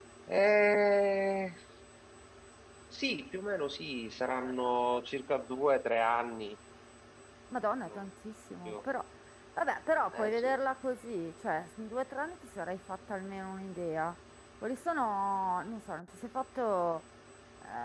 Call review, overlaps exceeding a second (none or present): none